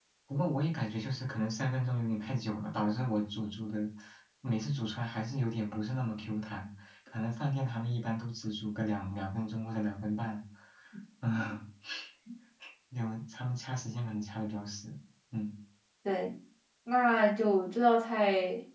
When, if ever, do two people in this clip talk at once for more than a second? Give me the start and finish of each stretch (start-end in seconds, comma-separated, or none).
none